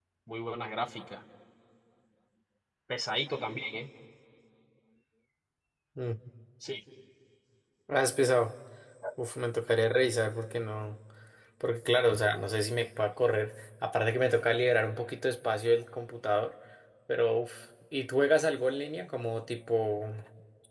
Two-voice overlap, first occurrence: none

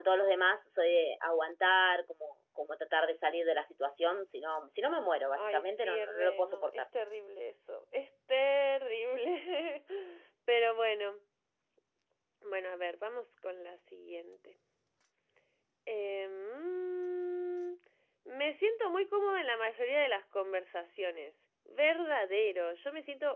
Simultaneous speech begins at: 5 s

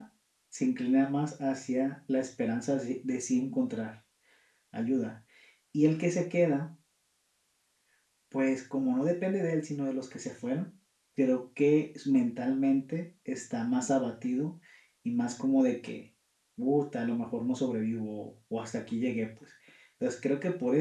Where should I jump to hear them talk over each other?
none

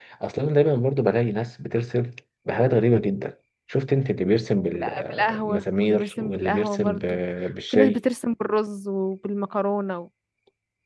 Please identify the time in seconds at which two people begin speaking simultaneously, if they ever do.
5 s

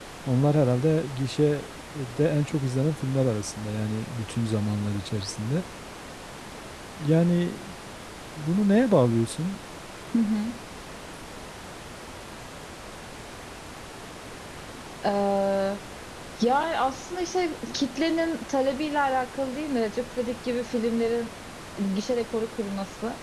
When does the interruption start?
none

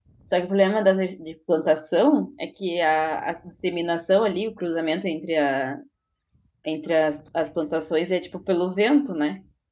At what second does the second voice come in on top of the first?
none

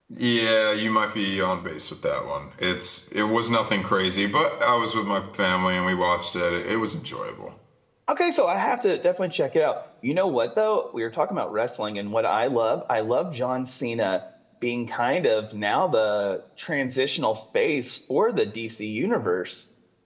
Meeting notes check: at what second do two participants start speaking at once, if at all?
none

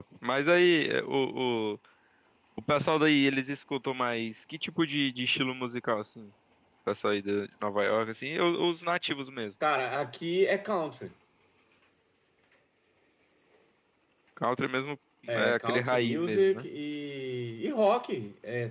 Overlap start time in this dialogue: 15 s

